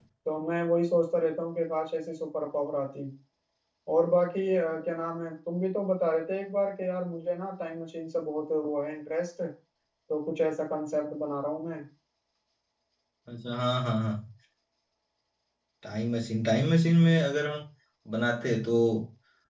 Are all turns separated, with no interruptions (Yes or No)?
Yes